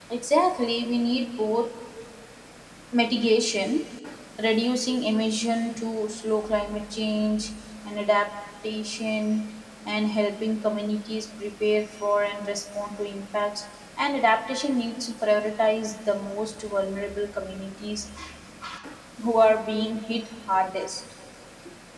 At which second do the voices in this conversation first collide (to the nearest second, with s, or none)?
none